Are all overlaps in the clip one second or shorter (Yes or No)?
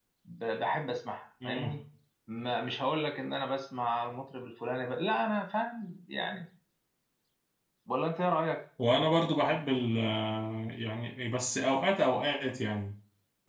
Yes